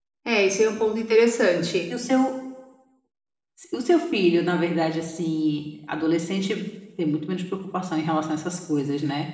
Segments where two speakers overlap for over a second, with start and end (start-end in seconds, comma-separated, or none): none